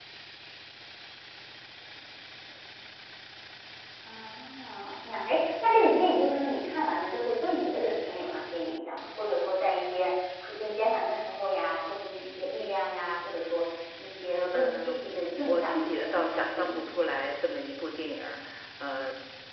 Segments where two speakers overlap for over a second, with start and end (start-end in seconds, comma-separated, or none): 15.5-17.0